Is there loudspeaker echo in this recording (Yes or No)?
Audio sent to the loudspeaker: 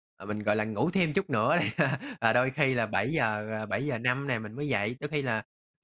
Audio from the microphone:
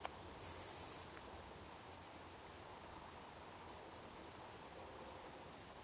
No